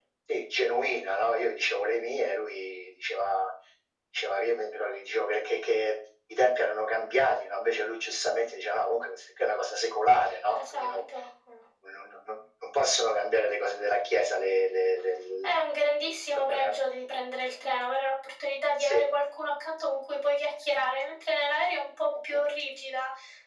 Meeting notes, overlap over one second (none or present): none